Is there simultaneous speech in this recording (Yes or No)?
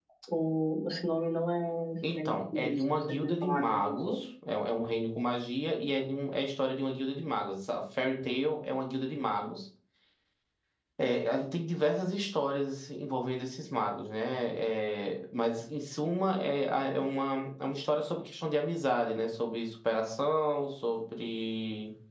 Yes